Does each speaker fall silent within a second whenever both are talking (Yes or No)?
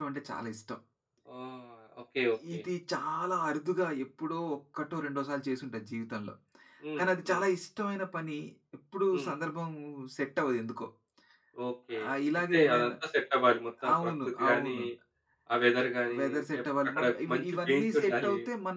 No